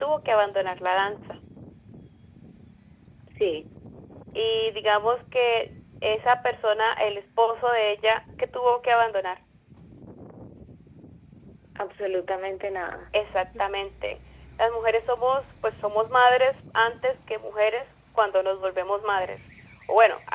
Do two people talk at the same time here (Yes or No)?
No